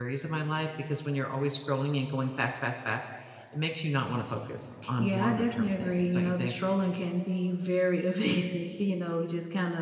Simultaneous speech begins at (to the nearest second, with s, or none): 5 s